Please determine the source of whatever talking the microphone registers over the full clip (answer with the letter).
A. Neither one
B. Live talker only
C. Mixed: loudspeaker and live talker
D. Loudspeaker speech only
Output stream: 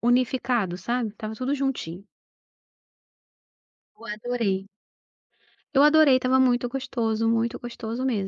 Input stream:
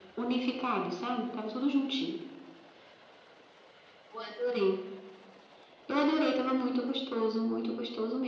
D